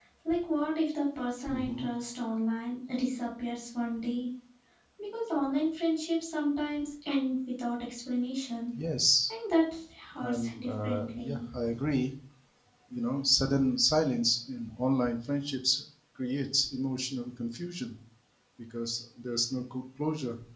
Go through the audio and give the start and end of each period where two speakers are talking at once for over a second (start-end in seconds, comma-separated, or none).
10.2-11.4